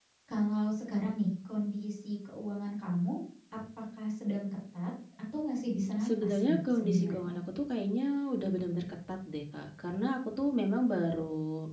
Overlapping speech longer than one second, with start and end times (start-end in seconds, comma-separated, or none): 6.0-7.3